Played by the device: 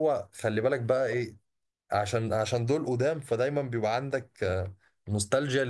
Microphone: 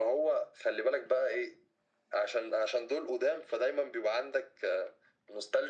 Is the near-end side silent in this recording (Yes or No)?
Yes